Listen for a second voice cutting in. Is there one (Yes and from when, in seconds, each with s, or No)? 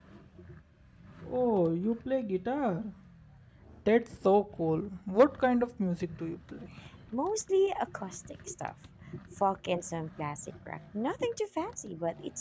No